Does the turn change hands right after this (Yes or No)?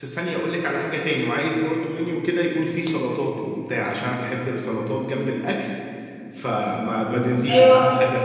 Yes